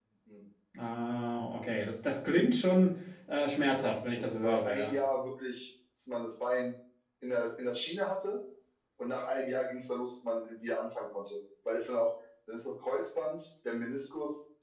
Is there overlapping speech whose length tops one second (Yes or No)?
Yes